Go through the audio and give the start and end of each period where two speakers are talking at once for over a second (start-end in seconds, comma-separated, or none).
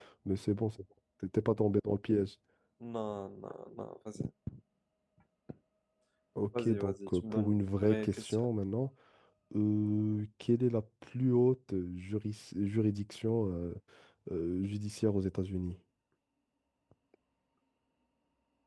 6.6-8.5